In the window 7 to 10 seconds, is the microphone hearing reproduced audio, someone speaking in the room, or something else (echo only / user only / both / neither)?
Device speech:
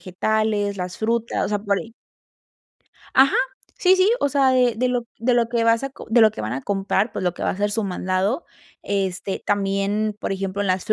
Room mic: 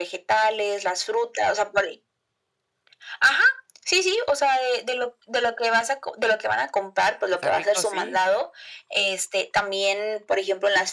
both